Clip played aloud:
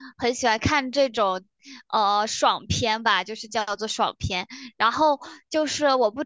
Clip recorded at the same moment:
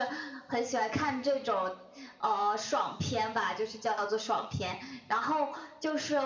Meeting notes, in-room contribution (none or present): none